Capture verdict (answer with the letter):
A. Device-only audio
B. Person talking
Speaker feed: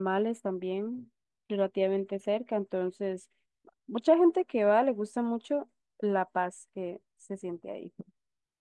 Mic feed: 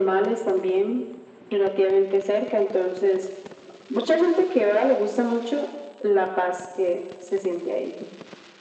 A